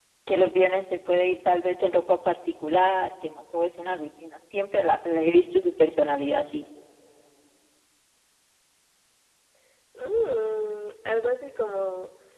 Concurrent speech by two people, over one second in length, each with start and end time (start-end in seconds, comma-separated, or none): none